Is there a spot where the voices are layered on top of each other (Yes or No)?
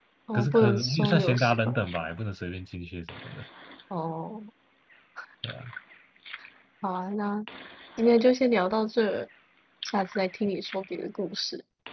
Yes